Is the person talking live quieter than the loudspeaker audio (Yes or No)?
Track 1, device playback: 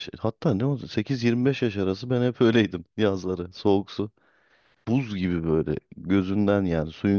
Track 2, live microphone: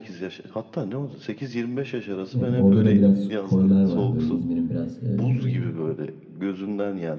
No